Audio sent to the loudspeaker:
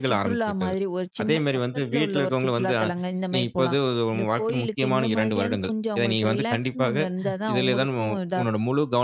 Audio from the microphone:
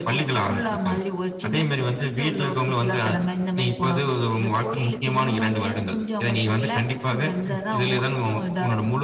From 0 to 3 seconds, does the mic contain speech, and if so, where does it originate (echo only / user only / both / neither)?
echo only